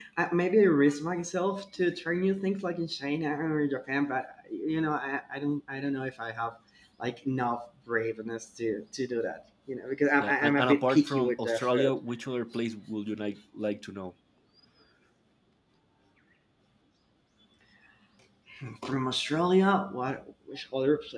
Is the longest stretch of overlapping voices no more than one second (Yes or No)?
No